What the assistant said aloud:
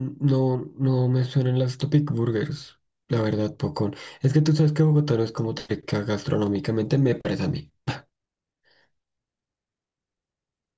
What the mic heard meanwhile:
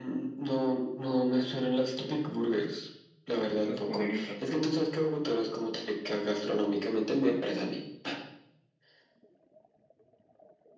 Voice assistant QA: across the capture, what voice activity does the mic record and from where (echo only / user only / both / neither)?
both